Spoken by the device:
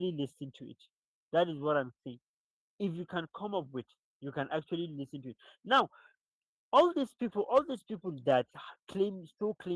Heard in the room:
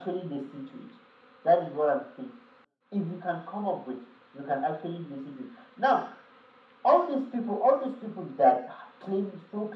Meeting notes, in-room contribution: none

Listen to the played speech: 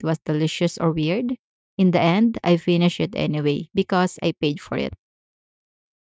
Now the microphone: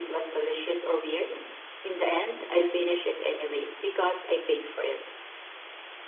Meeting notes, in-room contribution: none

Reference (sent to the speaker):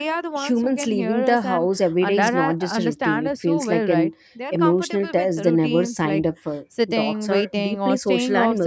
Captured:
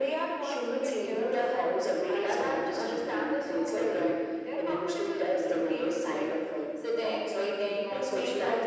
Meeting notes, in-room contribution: none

